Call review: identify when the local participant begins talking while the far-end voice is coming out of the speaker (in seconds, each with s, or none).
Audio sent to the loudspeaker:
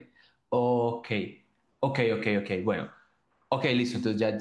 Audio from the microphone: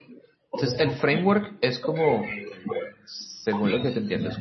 0.6 s